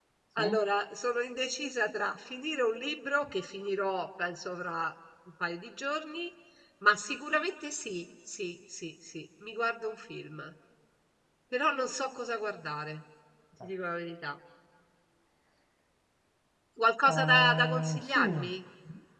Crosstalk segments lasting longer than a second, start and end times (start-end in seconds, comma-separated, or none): 17.1-18.5